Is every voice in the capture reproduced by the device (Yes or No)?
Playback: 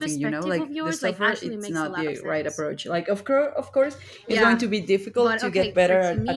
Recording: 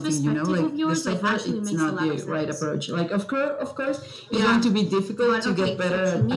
Yes